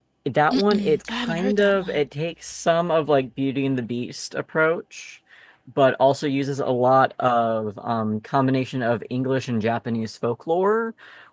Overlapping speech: Yes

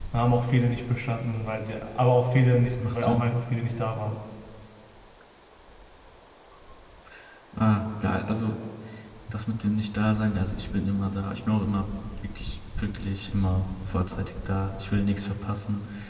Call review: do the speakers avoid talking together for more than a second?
Yes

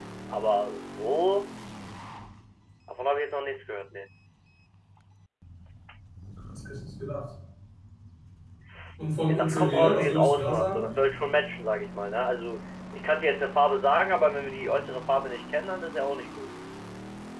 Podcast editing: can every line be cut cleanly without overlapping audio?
No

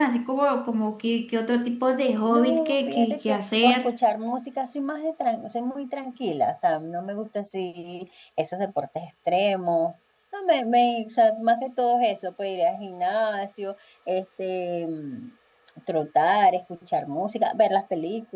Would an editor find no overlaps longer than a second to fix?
No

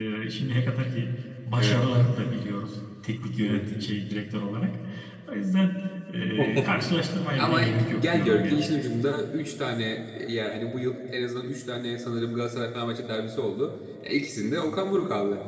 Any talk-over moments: Yes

